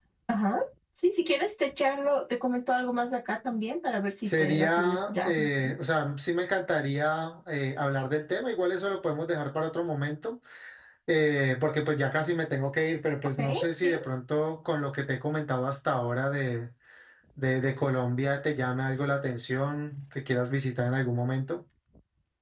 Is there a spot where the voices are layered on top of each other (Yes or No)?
Yes